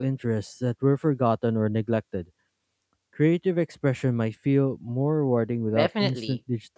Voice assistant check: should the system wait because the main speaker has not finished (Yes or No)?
No